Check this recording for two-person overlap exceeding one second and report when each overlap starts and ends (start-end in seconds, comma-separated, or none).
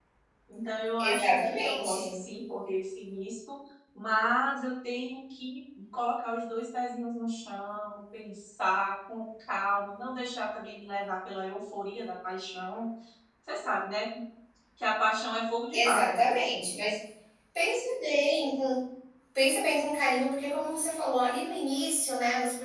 1.0-2.2